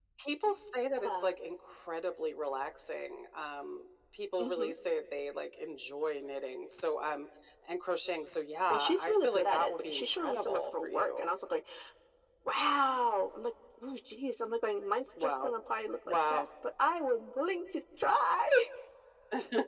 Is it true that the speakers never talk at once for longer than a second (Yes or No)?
No